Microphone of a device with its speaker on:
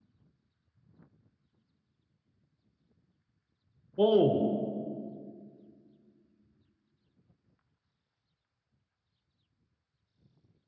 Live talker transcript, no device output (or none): 哦